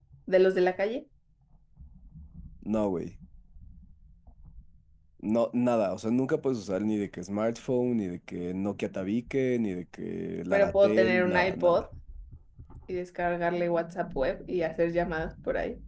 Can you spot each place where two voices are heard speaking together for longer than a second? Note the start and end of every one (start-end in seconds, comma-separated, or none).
10.5-11.8